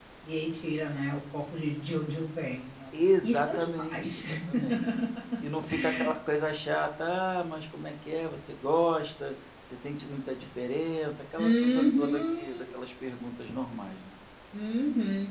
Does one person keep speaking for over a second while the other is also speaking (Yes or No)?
Yes